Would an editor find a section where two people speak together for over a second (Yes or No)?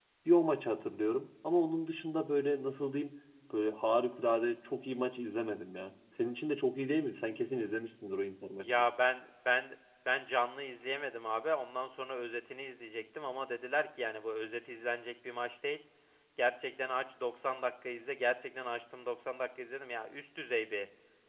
No